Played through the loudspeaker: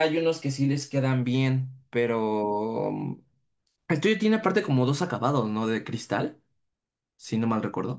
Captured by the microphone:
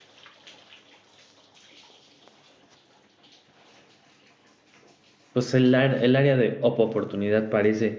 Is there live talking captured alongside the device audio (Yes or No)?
Yes